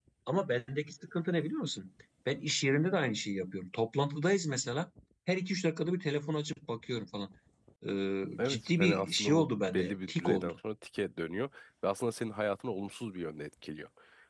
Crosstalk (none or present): present